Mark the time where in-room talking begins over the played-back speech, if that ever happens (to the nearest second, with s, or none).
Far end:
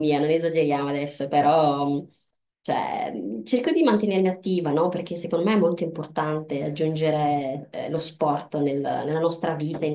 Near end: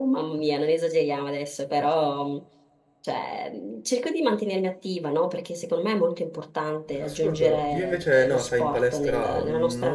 7 s